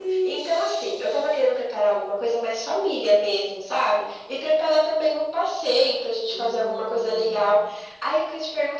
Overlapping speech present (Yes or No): Yes